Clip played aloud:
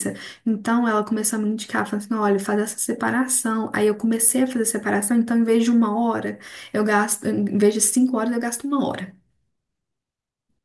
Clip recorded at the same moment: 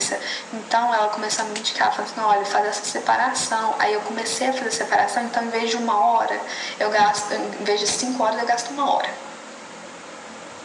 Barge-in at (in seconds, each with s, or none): none